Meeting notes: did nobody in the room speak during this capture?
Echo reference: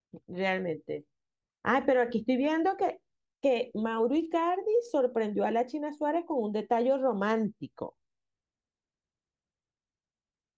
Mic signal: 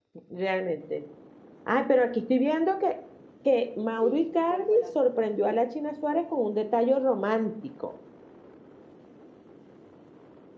No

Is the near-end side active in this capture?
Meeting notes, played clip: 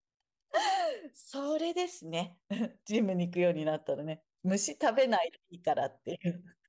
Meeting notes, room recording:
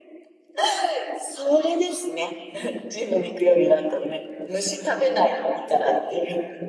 No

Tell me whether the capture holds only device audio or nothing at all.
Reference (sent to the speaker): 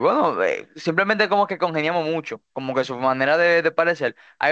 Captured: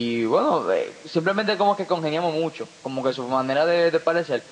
Yes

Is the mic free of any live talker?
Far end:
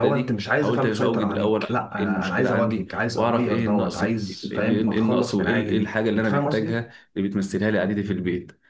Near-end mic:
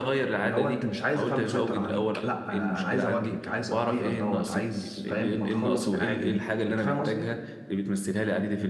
Yes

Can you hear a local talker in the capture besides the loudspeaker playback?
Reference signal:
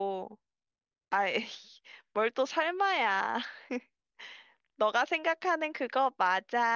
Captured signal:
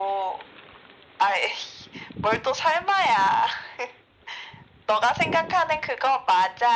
No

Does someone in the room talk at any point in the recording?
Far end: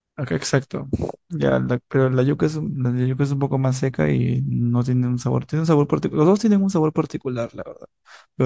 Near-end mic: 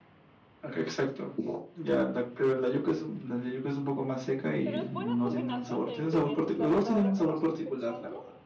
Yes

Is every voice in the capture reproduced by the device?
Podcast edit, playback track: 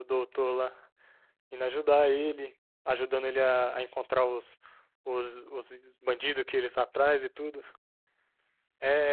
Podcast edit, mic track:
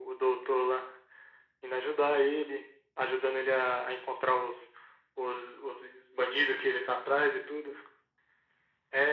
Yes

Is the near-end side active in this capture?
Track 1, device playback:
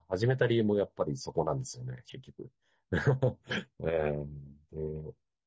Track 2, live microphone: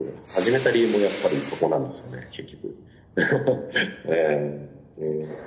No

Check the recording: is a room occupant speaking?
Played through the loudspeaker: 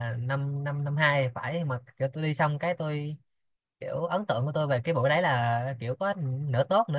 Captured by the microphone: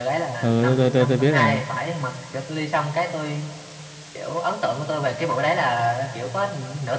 Yes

